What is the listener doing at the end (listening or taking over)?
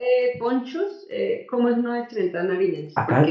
taking over